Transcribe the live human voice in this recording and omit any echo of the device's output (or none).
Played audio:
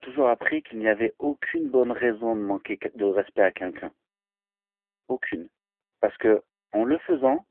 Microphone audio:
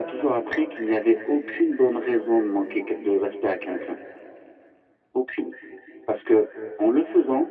none